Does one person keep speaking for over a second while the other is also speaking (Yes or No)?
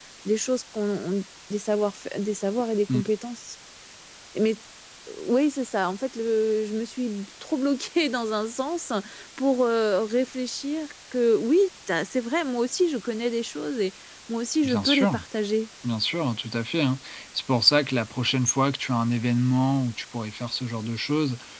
No